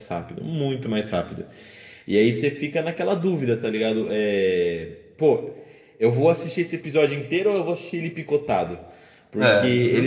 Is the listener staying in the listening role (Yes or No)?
Yes